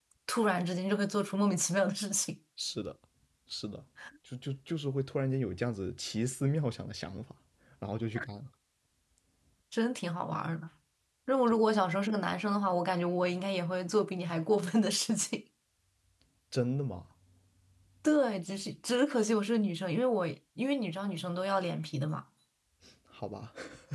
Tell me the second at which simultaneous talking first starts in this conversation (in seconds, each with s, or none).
none